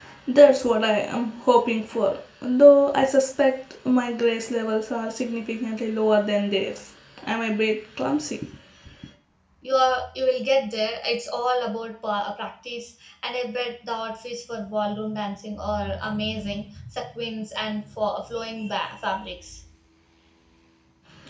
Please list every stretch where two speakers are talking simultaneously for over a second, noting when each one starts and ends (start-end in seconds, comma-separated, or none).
none